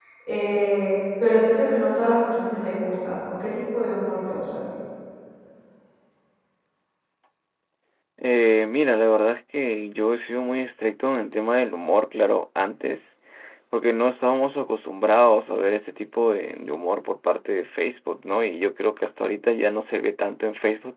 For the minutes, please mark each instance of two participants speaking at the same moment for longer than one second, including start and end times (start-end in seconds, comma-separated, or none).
none